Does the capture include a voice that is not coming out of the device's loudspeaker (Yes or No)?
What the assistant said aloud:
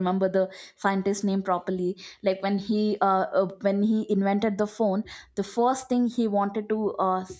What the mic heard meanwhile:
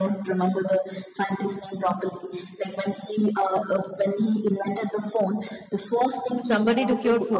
Yes